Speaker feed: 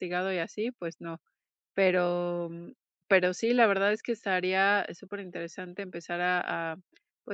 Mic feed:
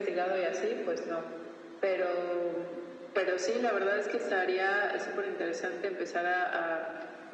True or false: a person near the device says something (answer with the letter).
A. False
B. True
A